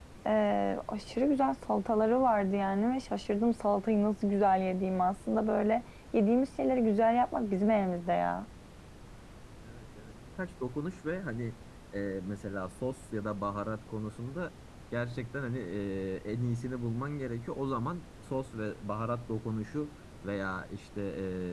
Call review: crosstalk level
none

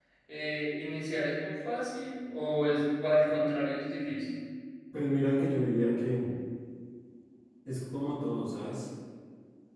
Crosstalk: none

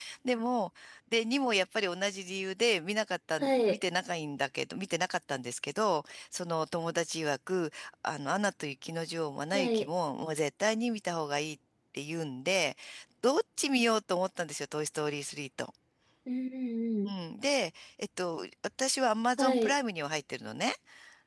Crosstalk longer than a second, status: none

